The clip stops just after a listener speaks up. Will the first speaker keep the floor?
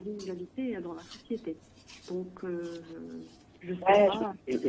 No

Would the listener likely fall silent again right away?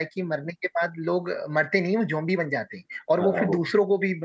Yes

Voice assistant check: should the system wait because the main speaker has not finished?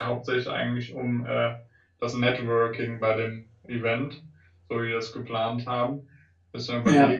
Yes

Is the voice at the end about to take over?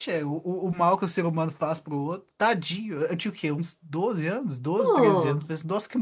No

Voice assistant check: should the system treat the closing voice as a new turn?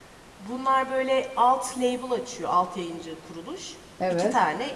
No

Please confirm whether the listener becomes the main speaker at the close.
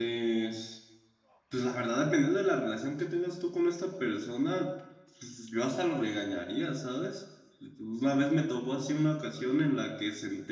No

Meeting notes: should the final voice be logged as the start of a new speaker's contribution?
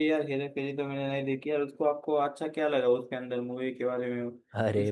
Yes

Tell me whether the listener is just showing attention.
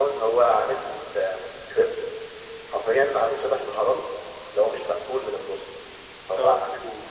Yes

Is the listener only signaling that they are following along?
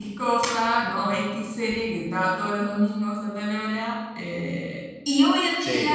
Yes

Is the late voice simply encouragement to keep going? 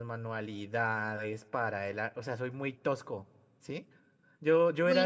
No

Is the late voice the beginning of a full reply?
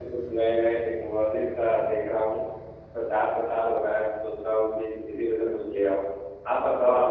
Yes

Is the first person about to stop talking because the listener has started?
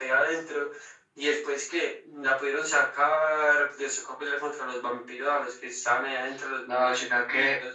Yes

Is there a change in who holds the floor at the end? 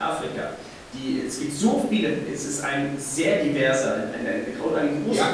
Yes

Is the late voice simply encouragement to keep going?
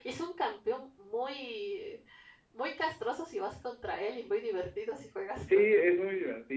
No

